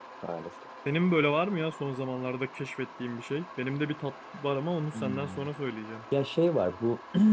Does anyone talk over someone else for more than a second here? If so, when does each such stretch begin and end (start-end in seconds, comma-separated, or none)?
none